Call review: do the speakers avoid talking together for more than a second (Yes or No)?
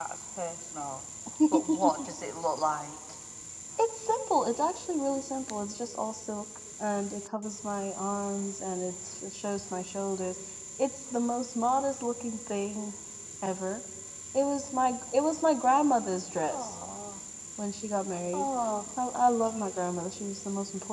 Yes